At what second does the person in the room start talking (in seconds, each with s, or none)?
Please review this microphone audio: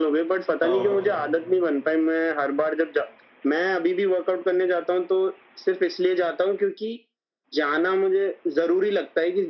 0.6 s